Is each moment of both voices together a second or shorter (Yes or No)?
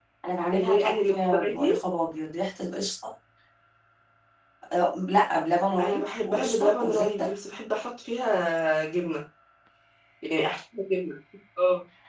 No